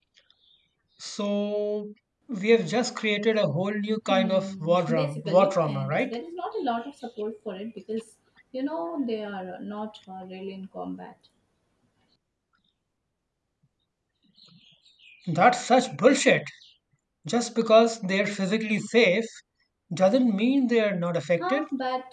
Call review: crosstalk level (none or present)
present